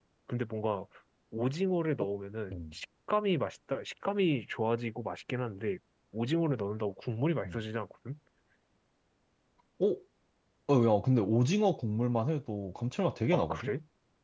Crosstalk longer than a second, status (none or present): none